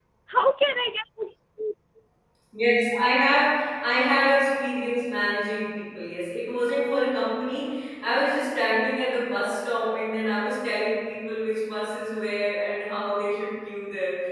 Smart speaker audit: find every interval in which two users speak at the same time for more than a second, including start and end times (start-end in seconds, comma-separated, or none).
none